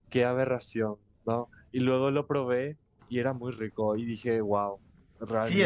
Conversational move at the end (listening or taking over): taking over